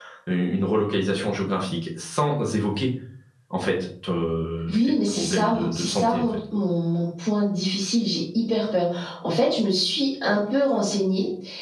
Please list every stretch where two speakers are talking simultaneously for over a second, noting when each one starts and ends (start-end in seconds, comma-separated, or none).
4.7-6.3